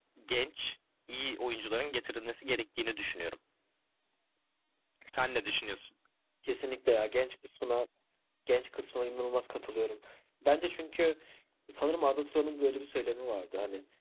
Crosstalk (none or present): none